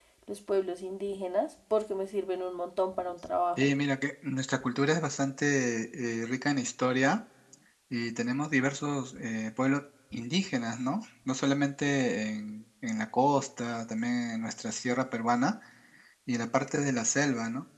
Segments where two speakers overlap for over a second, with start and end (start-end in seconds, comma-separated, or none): none